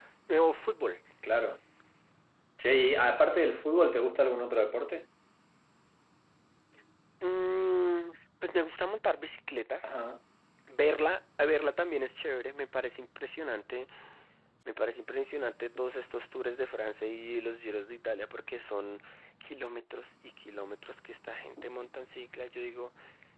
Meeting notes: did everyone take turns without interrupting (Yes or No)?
Yes